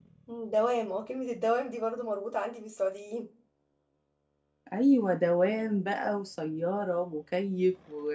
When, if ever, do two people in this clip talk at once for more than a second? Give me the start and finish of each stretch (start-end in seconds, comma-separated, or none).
none